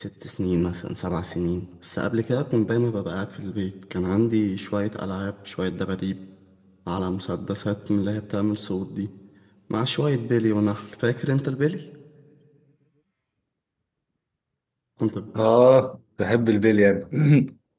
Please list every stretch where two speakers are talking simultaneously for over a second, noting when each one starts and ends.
none

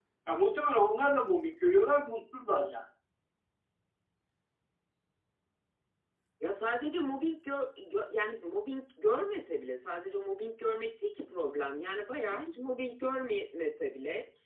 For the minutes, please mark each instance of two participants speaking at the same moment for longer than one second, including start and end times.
none

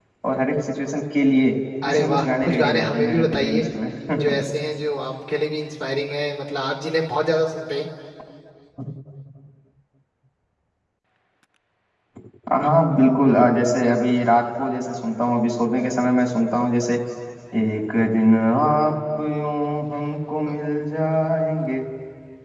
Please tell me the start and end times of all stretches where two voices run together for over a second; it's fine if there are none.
1.9-3.6

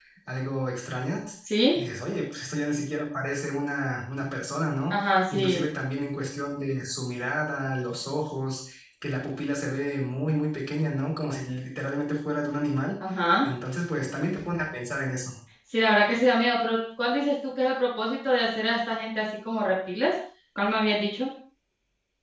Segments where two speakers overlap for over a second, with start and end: none

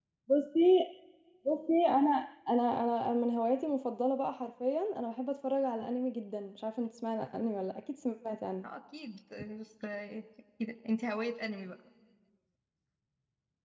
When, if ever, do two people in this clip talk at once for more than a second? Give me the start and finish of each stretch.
none

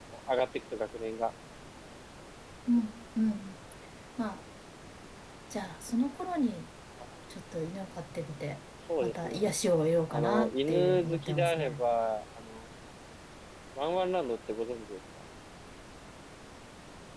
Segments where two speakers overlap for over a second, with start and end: 10.1-11.8

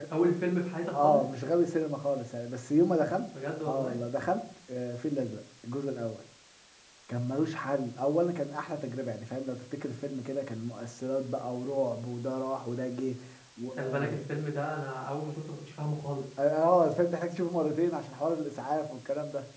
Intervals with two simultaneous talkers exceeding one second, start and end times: none

